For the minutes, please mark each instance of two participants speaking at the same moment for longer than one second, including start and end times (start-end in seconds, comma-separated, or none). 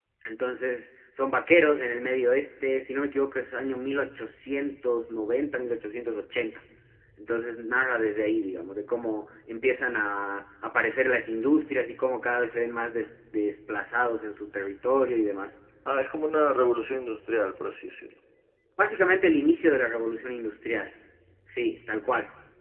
none